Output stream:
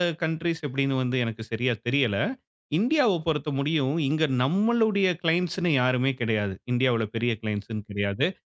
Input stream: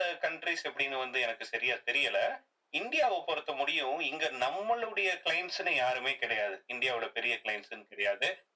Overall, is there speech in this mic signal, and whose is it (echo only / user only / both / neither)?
echo only